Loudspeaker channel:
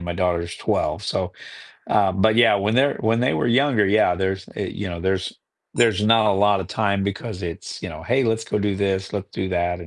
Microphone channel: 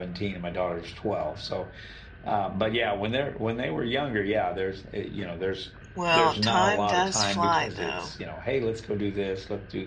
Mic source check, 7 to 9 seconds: both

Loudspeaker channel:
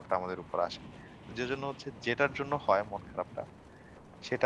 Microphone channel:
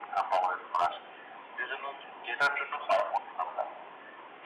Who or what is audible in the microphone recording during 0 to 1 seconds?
echo only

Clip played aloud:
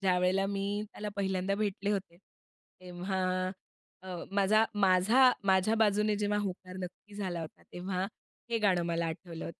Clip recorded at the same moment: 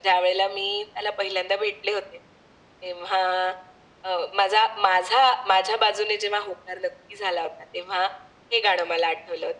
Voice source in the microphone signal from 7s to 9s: echo only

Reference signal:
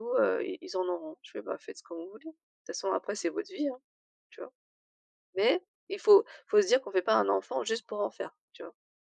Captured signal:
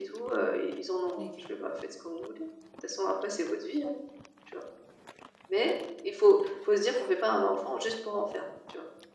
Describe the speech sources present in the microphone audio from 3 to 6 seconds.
echo only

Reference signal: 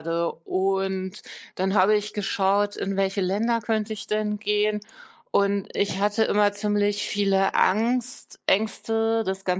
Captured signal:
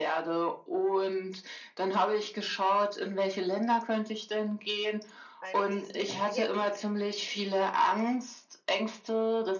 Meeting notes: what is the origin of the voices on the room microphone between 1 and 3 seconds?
echo only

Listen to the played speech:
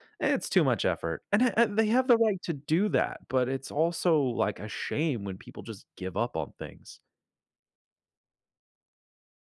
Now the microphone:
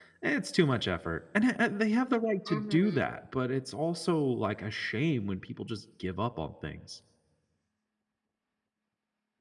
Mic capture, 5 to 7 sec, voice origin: echo only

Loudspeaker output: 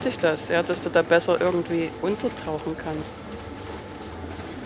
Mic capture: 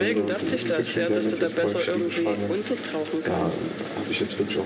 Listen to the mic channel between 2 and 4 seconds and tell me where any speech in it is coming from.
both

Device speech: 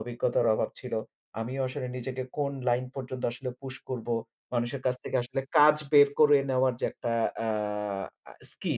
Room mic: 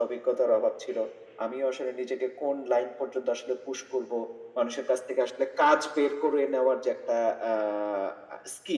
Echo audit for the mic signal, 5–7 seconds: echo only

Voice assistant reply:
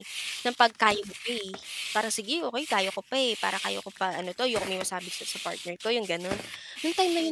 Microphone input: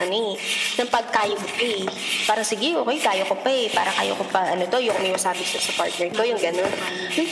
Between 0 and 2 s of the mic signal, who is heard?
echo only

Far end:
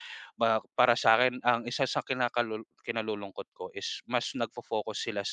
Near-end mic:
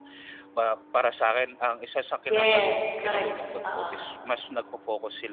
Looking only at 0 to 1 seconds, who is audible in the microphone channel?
echo only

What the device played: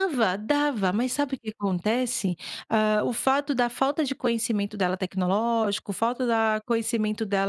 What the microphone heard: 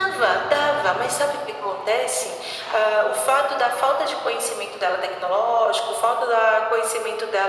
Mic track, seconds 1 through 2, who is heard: echo only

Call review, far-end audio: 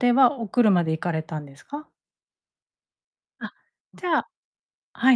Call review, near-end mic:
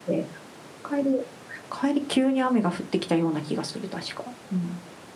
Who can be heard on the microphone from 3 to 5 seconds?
user only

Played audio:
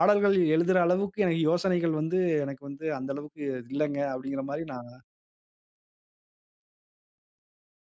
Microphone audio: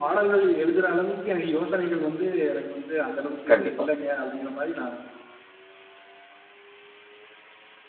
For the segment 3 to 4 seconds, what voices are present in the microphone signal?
both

